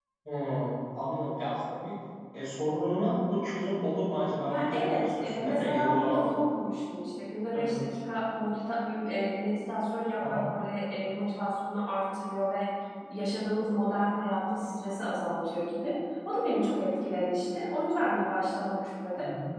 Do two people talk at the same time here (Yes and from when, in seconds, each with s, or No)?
Yes, from 4.4 s